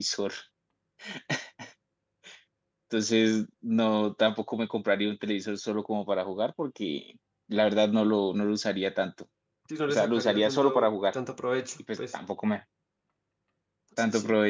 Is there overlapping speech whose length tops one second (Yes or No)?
Yes